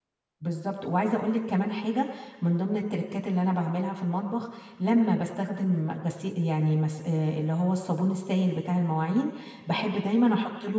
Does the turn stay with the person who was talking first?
Yes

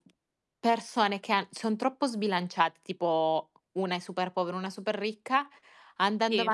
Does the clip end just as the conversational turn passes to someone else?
No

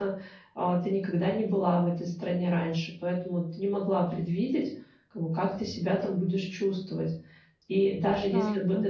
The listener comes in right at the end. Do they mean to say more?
No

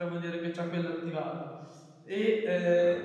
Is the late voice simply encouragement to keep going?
Yes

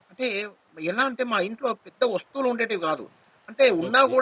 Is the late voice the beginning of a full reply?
No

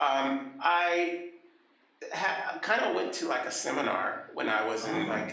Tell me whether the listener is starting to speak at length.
No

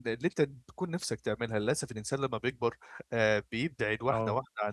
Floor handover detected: No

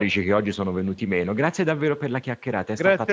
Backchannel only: No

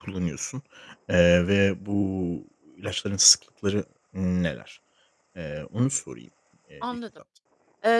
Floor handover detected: Yes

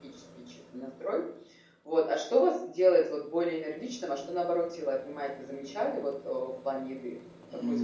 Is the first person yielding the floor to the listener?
Yes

